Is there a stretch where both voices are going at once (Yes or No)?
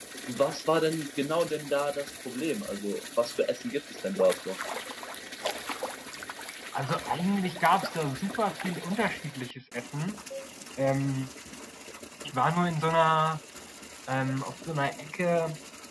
No